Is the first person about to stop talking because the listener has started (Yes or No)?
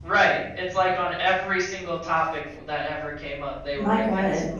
No